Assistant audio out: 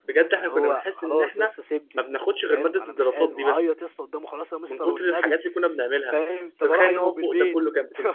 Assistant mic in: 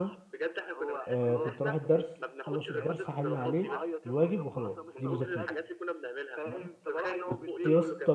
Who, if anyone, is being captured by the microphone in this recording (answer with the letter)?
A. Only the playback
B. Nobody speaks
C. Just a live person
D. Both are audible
D